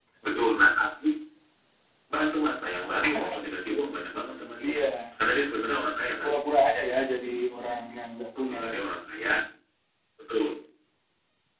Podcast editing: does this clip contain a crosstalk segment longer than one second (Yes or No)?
No